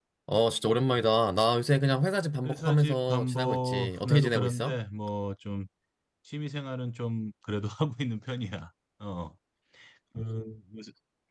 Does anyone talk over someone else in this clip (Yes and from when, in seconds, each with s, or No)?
Yes, from 2.4 s